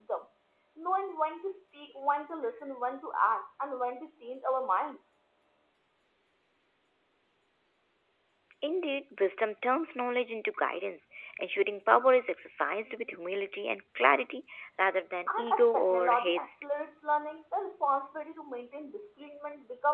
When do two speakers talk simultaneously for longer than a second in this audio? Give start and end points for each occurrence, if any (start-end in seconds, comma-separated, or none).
15.3-16.6